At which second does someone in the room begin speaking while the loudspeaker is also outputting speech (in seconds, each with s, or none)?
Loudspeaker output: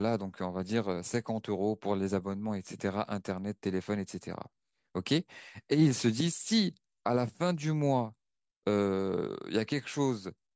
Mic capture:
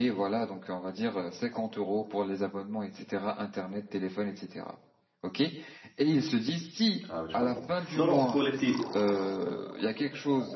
7.1 s